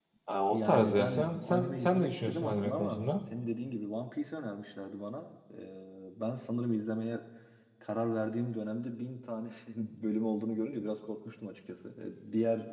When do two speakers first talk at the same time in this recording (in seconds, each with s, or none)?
0.5 s